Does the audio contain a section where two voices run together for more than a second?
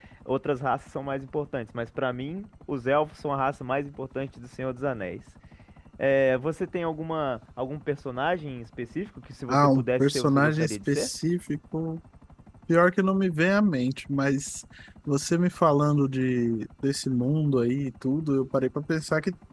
Yes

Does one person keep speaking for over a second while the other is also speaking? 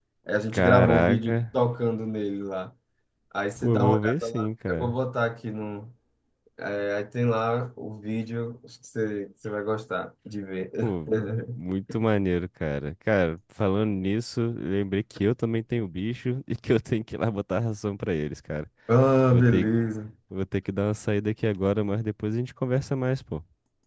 Yes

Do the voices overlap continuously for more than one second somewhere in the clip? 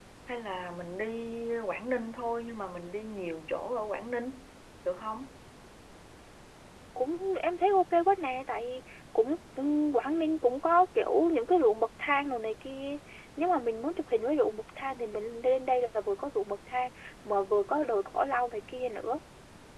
No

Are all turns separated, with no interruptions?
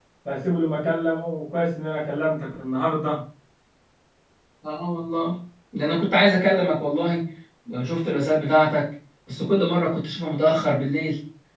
Yes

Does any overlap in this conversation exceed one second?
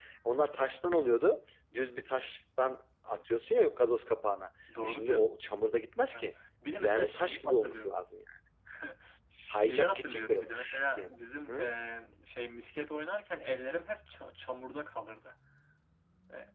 Yes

